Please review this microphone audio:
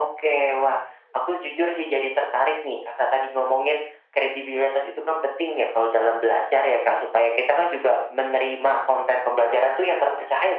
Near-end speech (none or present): none